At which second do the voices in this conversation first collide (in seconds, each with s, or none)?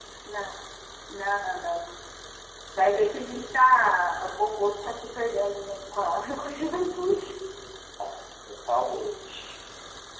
none